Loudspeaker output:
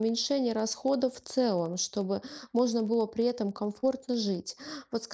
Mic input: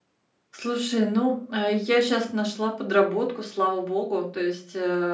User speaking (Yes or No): Yes